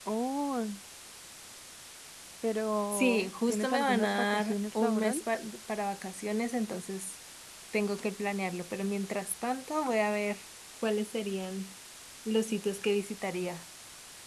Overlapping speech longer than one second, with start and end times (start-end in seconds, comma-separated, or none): 2.9-5.2